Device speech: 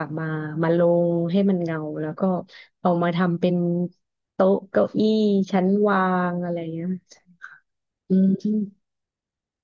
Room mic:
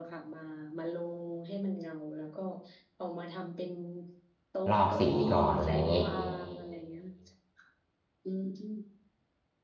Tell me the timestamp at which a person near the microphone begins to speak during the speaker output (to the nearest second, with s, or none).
5 s